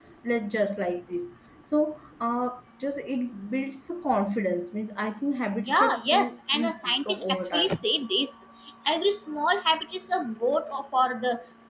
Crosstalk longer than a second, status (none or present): present